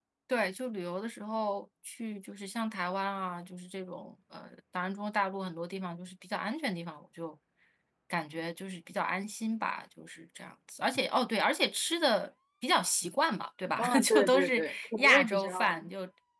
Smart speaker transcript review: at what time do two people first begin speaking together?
13.8 s

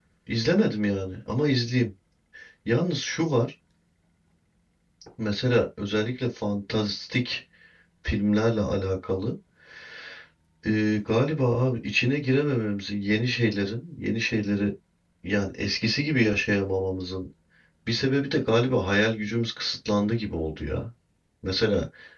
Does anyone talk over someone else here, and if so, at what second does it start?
none

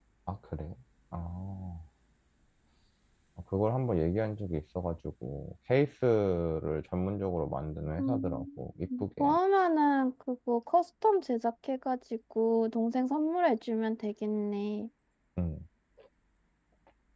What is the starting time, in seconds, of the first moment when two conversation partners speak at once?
8.0 s

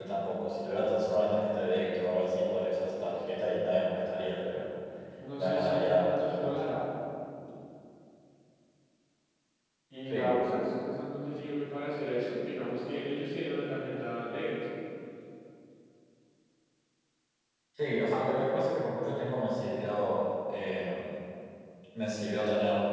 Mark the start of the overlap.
5.4 s

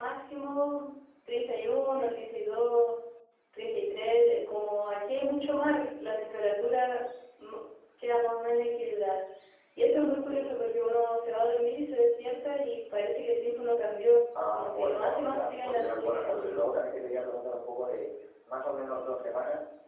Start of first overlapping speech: 14.3 s

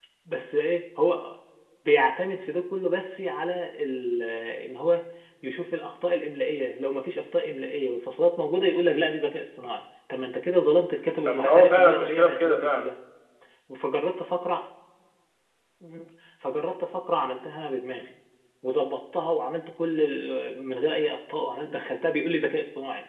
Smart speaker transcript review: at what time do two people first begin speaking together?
11.3 s

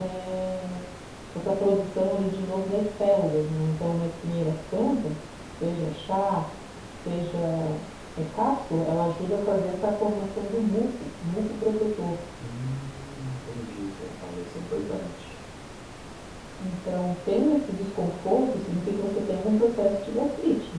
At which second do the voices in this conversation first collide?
none

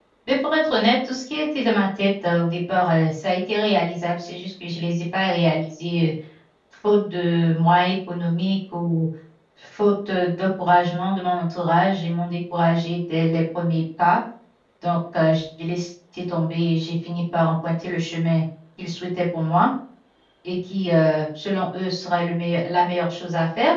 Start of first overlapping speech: none

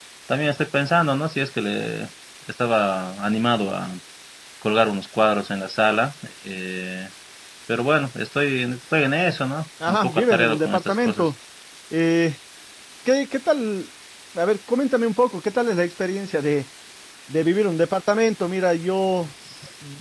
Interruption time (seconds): 9.8 s

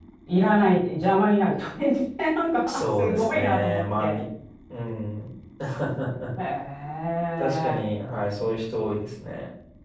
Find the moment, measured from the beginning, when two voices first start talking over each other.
2.7 s

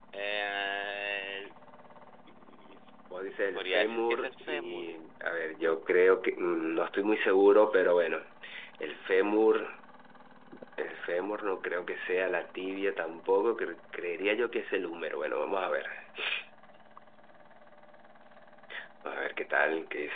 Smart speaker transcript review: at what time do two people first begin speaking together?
3.5 s

